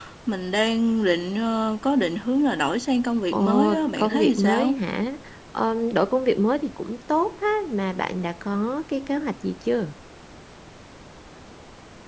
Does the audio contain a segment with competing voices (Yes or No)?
Yes